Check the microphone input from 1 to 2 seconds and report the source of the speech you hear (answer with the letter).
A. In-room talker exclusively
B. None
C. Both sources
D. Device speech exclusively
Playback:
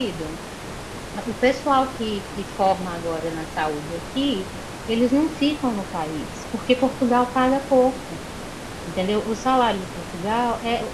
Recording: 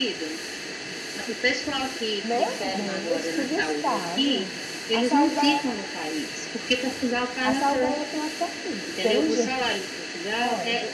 D